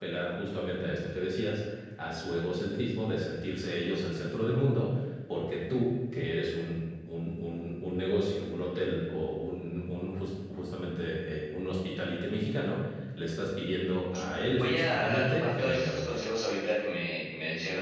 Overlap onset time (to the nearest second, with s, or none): 15 s